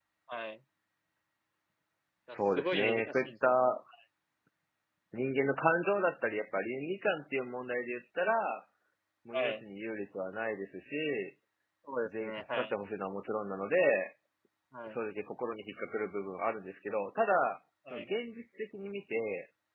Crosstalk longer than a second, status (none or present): present